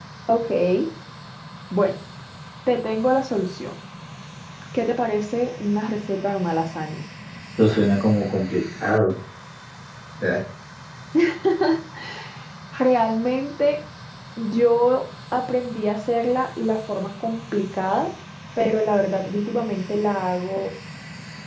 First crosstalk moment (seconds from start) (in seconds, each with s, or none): none